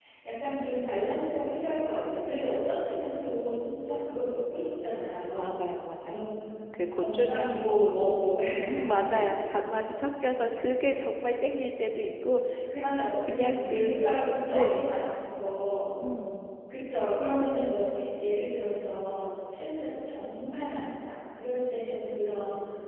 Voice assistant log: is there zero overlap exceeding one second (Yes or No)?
No